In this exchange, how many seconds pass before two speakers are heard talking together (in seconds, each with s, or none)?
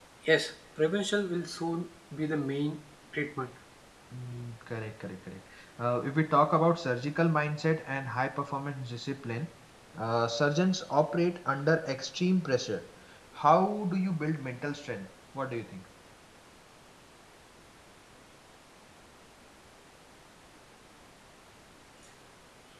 none